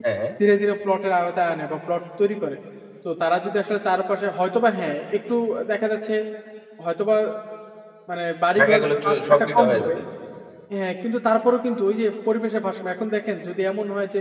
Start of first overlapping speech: 8.6 s

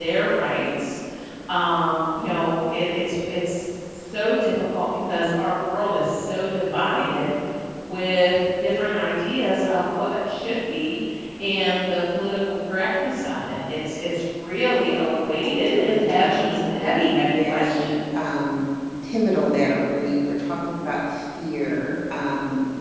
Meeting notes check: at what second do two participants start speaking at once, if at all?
15.4 s

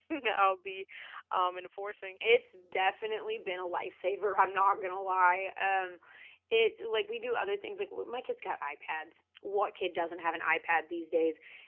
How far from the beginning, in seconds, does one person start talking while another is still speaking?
none

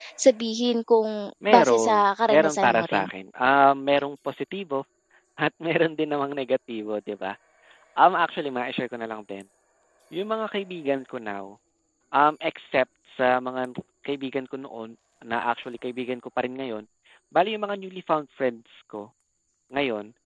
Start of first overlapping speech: 1.5 s

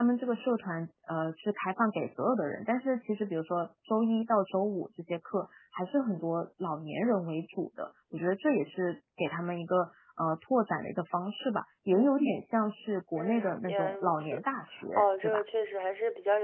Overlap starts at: 13.2 s

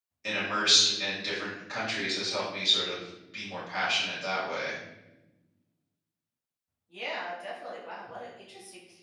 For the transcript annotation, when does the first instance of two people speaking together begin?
none

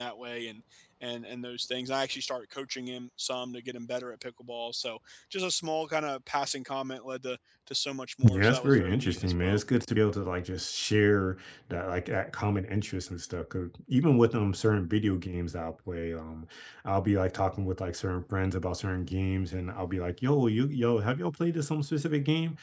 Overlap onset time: 8.2 s

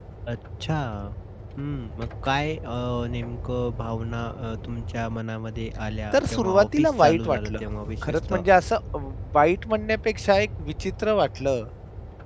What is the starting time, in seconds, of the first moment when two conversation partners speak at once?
6.1 s

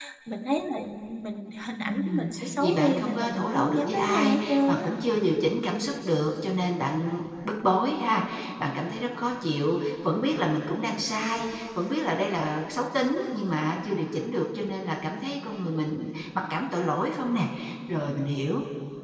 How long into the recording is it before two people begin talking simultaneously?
1.9 s

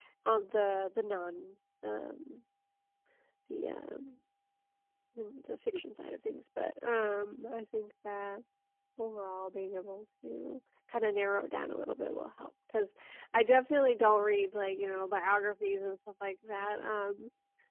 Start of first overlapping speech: none

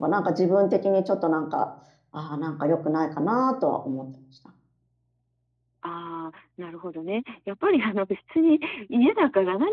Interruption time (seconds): none

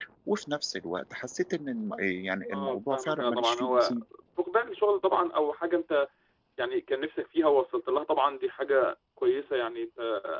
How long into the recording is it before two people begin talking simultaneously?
2.5 s

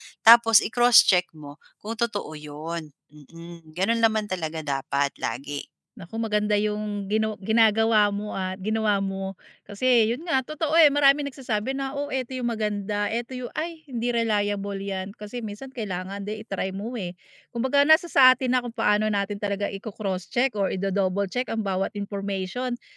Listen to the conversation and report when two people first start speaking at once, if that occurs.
none

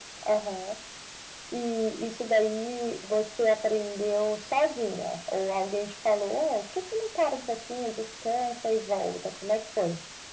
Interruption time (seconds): none

